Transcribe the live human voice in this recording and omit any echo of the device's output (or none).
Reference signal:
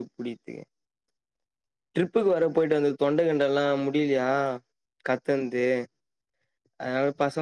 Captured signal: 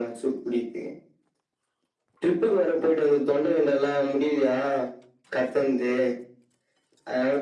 none